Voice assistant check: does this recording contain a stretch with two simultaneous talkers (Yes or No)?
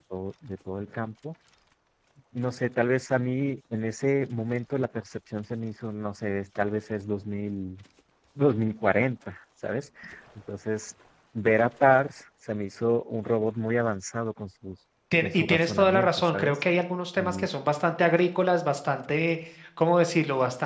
Yes